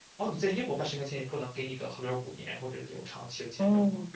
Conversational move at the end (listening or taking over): taking over